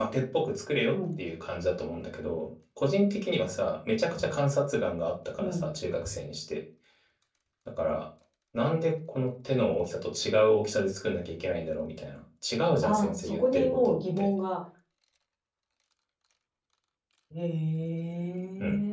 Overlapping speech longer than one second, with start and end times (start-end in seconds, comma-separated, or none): 12.8-14.3